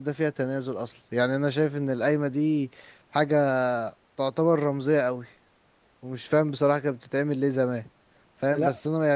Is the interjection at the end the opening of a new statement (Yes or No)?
No